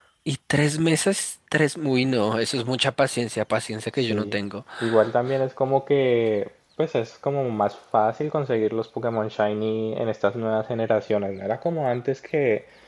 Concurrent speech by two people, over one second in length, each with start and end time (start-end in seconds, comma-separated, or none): none